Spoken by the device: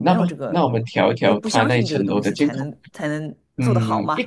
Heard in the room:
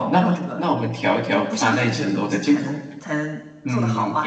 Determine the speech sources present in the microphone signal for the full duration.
echo only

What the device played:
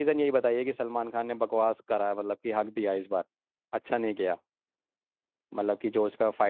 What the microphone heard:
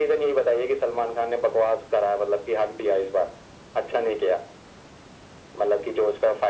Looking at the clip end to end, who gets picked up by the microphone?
echo only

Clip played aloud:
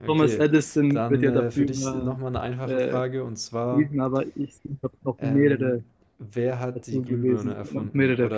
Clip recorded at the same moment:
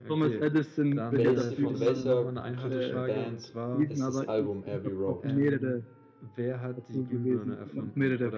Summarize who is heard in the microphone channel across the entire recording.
both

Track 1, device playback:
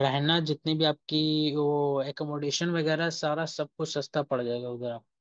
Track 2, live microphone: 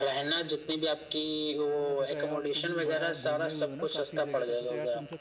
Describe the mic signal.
both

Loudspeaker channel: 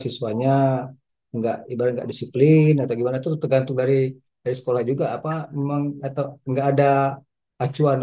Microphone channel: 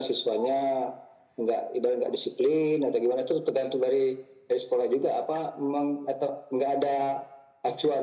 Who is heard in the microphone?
echo only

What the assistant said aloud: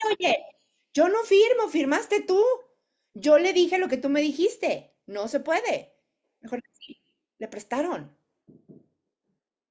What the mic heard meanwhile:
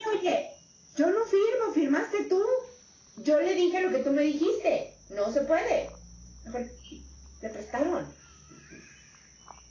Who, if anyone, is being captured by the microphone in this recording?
echo only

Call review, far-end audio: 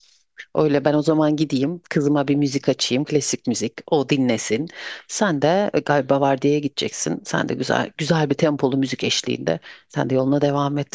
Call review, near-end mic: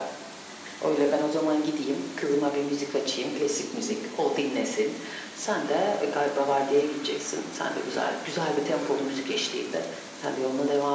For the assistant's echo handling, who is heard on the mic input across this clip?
echo only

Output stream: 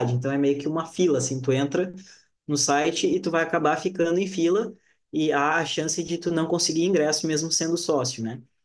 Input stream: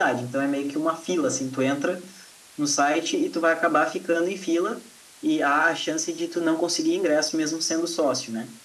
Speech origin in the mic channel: echo only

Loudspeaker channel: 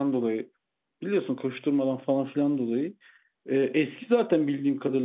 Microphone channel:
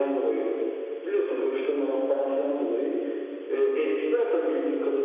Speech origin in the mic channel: echo only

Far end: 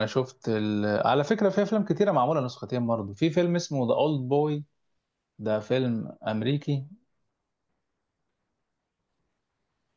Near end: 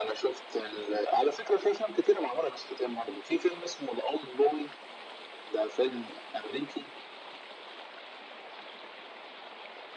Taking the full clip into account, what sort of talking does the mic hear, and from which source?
echo only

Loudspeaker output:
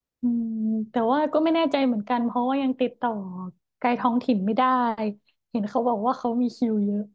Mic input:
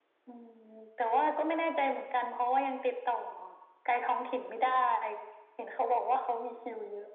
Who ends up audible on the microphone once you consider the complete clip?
echo only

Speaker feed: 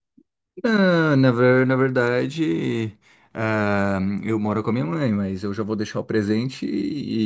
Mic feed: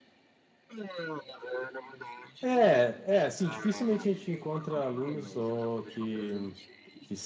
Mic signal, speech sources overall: both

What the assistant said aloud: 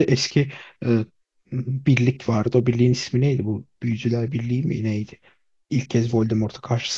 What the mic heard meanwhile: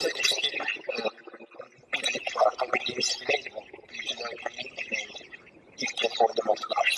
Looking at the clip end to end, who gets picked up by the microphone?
echo only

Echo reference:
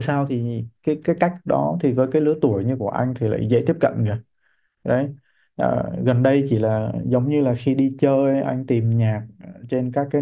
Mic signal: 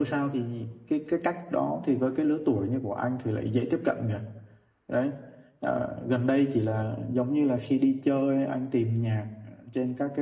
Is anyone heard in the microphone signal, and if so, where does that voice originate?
echo only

